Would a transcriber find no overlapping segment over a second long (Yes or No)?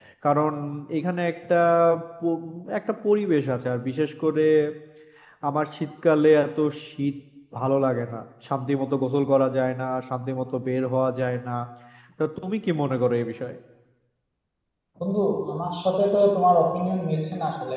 Yes